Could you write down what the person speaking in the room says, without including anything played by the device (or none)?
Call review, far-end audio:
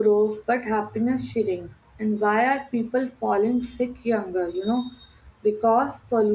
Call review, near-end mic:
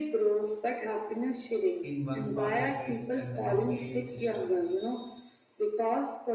in one part affects and the entire system.